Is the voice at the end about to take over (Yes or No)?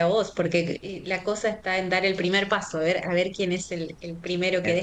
No